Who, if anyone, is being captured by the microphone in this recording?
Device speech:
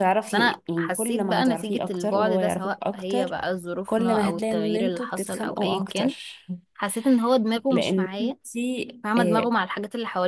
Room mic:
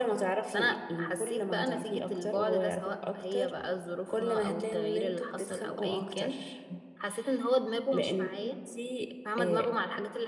echo only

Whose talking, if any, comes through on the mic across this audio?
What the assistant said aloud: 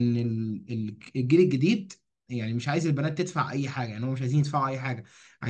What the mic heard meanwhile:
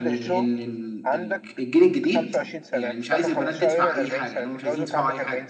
both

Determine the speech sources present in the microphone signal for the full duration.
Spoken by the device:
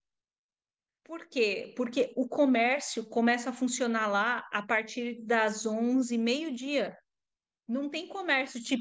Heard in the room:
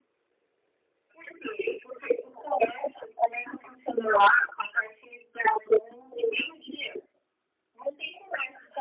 echo only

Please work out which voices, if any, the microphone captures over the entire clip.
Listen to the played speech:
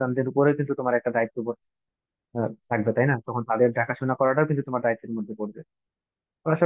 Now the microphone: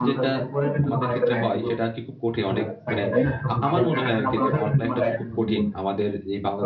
both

